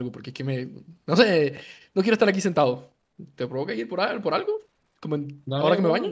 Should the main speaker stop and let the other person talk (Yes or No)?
Yes